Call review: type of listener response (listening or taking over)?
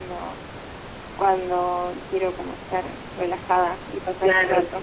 taking over